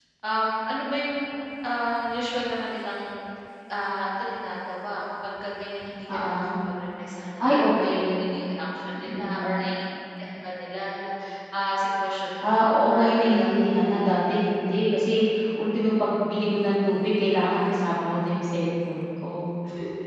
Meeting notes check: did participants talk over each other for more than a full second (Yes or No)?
Yes